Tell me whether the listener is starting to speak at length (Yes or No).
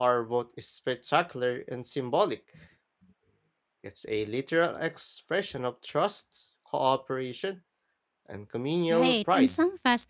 Yes